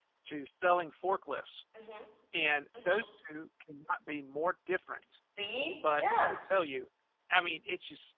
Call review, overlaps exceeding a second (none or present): none